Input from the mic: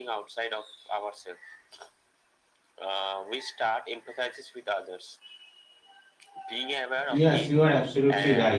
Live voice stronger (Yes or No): Yes